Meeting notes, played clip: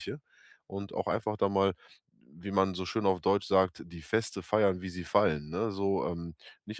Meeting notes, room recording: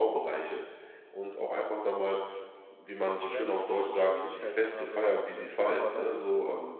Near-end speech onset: 3.1 s

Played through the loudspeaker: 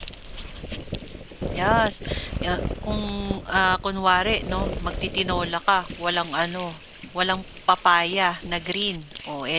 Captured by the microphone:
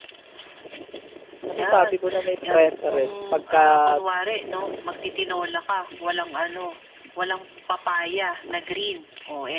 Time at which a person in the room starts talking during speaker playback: 1.5 s

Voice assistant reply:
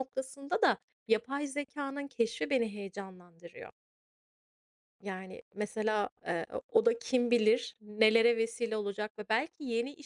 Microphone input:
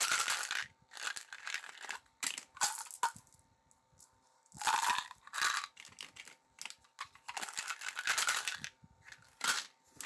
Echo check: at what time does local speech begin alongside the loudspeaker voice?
none

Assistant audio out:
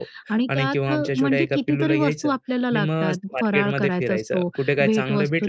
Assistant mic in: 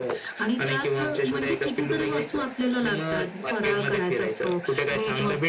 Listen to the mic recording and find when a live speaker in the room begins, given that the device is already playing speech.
none

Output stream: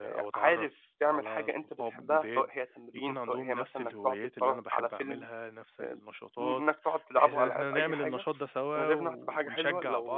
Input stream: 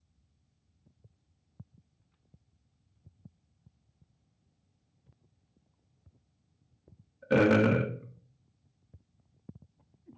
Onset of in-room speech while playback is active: 7.3 s

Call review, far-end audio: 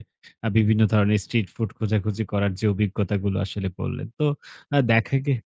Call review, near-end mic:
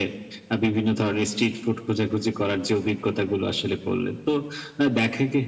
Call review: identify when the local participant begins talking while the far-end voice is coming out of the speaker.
none

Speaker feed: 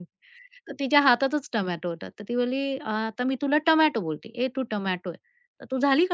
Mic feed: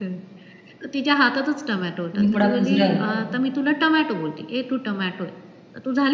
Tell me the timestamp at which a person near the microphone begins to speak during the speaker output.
2.1 s

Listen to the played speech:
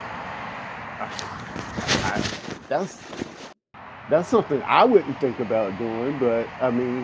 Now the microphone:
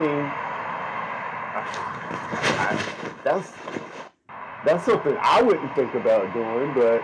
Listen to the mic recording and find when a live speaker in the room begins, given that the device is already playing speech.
none

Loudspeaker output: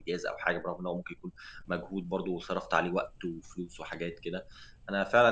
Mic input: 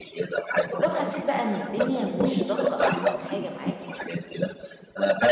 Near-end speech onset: 0.8 s

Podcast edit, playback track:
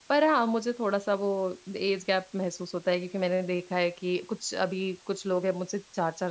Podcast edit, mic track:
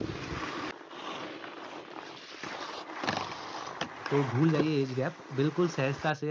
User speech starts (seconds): 4.1 s

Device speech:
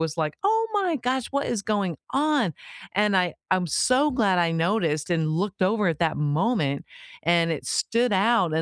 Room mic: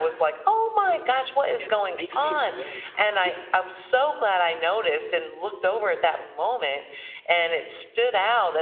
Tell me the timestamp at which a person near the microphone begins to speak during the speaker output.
1.6 s

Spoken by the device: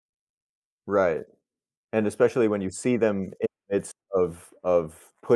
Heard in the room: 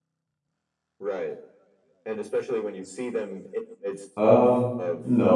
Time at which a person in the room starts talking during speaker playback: 4.2 s

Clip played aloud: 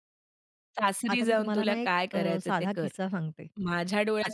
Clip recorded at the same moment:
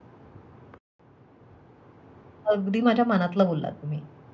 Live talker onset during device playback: 2.5 s

